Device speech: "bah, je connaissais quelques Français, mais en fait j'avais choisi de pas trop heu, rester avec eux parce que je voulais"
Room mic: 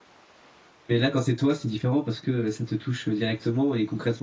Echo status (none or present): none